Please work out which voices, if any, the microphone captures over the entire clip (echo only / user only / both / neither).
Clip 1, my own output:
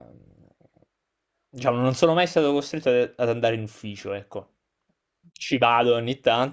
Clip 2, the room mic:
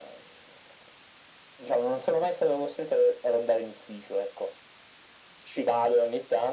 echo only